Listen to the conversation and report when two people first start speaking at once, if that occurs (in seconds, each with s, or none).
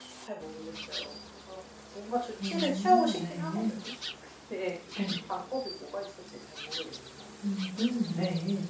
2.4 s